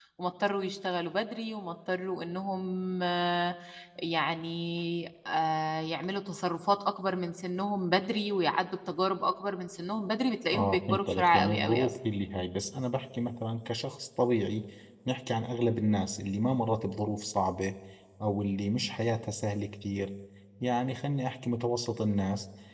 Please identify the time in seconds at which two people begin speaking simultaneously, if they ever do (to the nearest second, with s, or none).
11 s